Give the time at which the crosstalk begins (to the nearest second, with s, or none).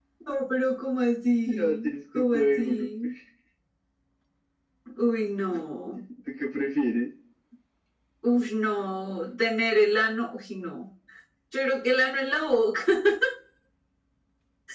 1 s